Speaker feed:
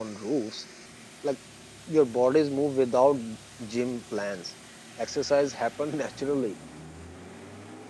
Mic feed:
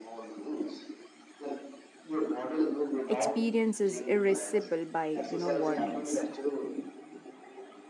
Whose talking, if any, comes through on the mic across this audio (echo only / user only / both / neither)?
both